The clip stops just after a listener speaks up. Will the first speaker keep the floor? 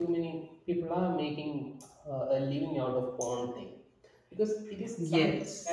Yes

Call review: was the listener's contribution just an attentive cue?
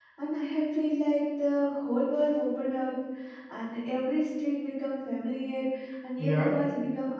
Yes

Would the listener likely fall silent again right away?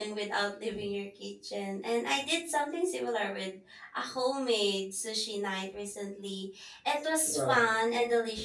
Yes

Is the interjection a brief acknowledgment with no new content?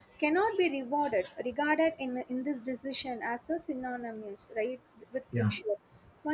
Yes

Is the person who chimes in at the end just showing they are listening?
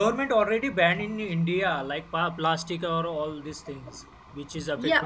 No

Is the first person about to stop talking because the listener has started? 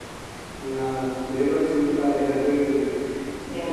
No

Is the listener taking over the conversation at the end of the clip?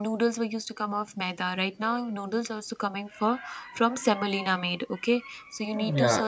No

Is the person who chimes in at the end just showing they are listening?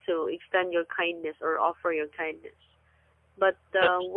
Yes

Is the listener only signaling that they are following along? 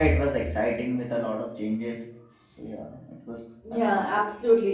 No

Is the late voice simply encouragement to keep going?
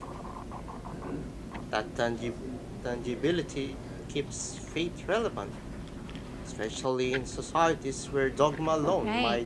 No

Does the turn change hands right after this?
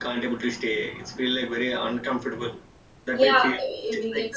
Yes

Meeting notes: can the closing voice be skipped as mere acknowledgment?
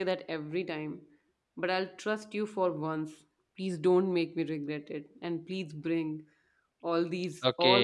No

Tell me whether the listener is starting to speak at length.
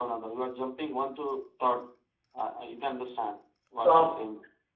Yes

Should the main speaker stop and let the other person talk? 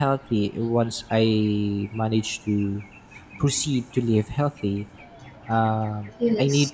No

